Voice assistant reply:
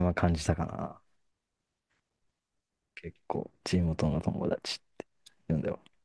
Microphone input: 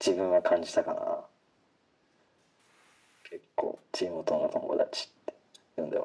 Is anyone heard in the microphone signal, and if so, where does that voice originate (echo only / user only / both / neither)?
echo only